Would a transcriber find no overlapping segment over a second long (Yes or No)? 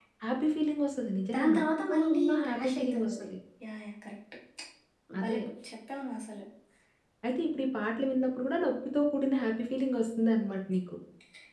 No